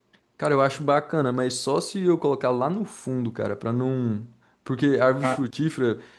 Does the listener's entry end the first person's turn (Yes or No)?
No